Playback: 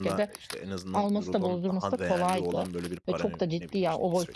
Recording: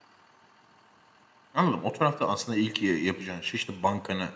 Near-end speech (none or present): present